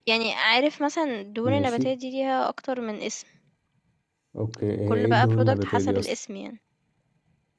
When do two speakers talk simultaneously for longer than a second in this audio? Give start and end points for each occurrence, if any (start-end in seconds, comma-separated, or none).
4.9-6.1